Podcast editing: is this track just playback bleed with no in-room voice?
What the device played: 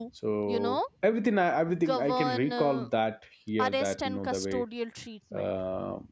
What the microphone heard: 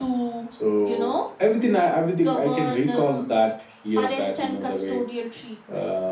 Yes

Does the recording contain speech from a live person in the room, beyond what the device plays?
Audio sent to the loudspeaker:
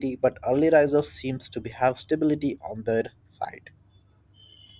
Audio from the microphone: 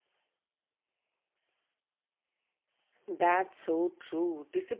Yes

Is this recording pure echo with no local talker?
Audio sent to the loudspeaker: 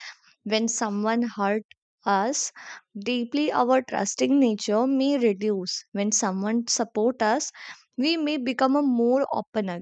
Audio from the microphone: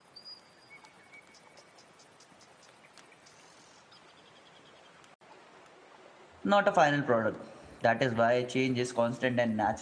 No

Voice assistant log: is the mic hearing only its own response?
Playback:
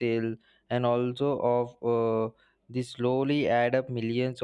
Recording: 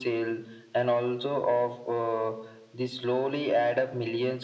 Yes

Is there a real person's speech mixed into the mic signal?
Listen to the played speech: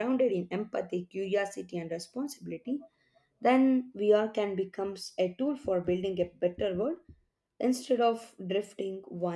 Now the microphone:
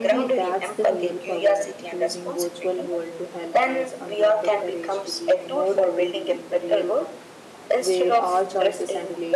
Yes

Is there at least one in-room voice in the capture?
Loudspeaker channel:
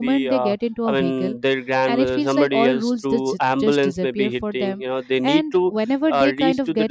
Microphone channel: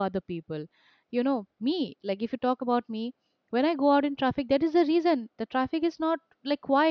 Yes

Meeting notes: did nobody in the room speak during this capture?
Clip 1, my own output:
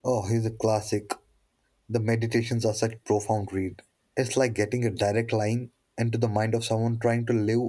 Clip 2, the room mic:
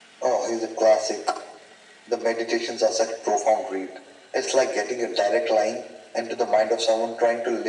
Yes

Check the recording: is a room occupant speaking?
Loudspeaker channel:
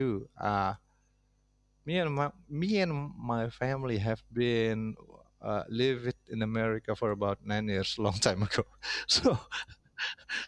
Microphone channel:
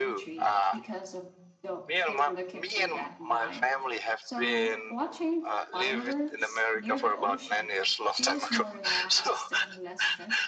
Yes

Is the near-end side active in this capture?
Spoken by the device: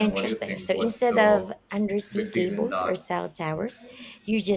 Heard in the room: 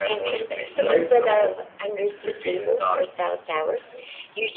Yes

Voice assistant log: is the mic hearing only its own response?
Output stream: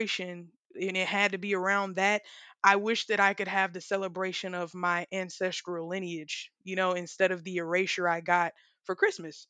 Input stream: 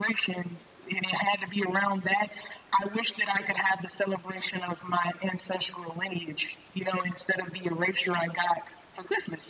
Yes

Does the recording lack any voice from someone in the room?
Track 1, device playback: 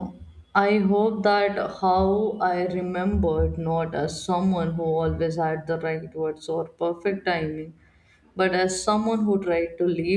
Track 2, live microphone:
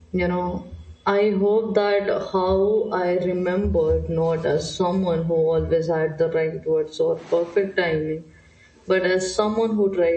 Yes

